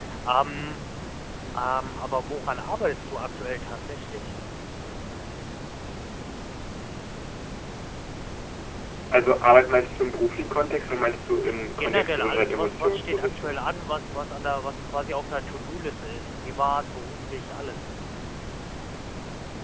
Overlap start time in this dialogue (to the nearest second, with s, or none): 12 s